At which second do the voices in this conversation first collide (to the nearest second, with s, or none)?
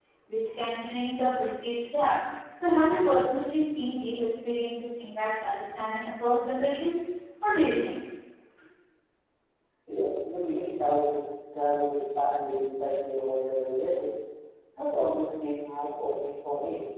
none